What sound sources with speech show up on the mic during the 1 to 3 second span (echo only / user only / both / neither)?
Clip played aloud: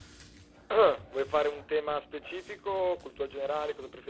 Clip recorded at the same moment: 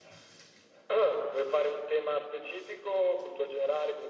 echo only